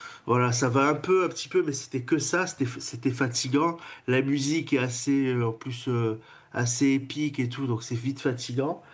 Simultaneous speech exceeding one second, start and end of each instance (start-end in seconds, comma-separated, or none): none